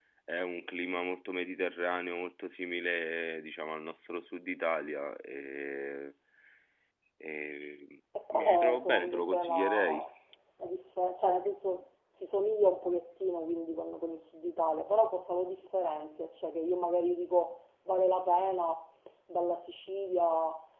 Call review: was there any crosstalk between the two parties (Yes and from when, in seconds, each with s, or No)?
Yes, from 8.2 s